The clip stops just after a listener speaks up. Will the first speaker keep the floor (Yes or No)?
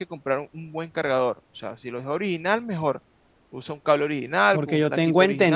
No